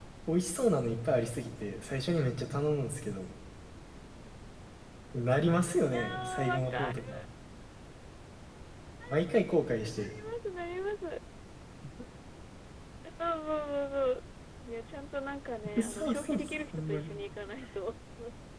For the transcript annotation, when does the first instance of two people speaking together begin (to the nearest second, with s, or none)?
6 s